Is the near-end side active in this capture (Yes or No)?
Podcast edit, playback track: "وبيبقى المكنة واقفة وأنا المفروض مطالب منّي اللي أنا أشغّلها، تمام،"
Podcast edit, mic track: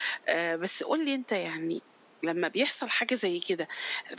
Yes